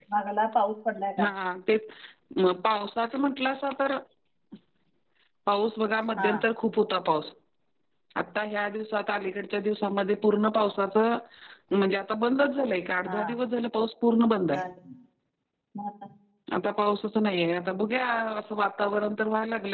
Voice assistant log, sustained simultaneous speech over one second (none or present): none